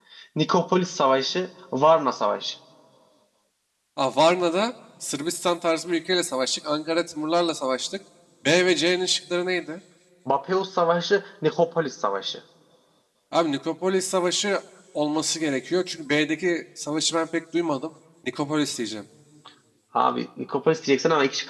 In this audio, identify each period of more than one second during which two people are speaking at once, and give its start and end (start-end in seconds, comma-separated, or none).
none